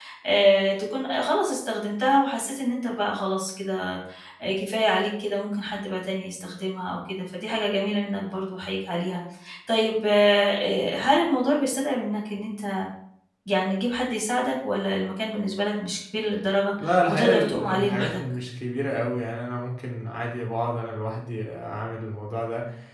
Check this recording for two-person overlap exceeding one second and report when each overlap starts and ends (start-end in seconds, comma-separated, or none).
16.8-18.2